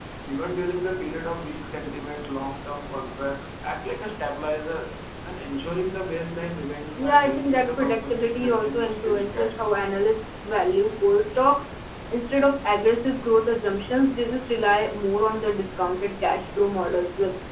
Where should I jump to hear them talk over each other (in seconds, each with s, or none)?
7.0 s